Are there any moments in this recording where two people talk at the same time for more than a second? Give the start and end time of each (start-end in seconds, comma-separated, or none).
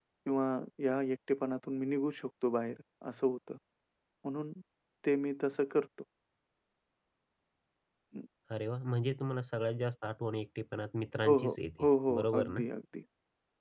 11.2-12.6